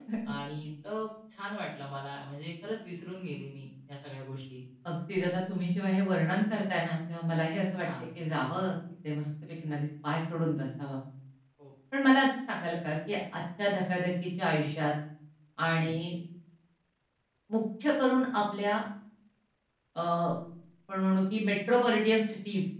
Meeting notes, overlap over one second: none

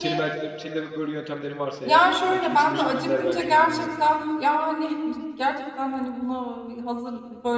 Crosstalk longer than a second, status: present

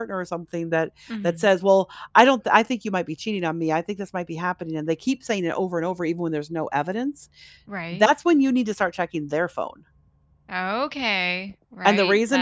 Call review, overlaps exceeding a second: none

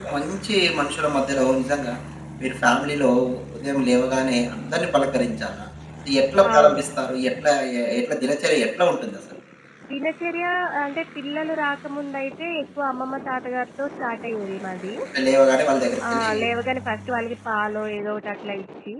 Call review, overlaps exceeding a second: none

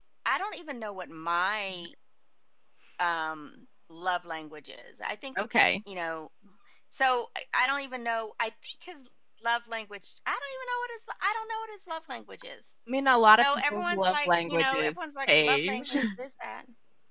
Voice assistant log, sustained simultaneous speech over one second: present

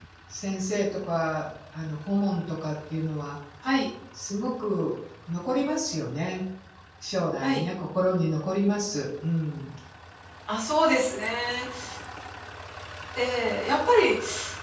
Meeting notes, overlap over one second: none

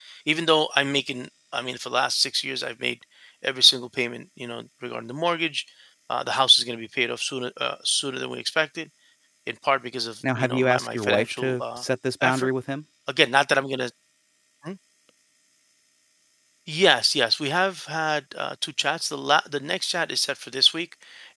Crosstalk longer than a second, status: present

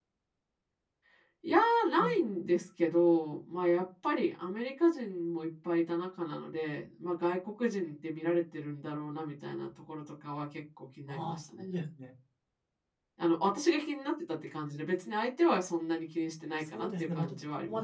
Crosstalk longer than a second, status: present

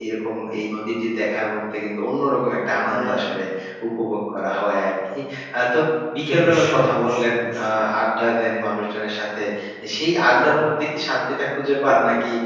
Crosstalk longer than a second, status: present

